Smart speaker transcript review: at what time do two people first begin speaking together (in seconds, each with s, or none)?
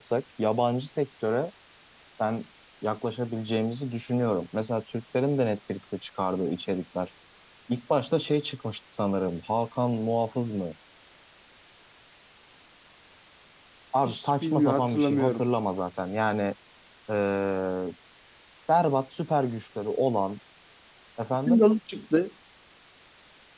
14.1 s